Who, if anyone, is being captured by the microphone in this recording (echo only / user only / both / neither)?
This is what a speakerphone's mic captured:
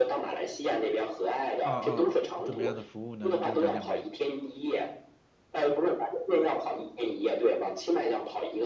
both